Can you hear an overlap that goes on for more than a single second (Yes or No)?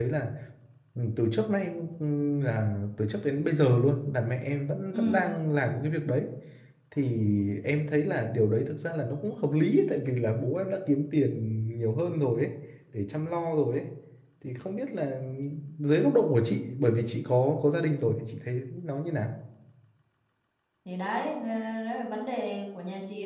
No